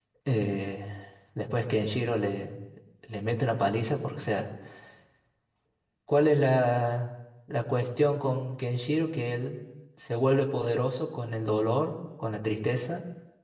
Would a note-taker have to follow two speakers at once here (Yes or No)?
No